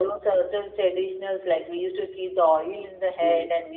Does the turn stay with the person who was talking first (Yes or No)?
Yes